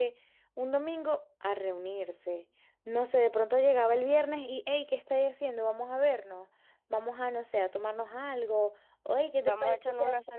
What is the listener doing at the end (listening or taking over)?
taking over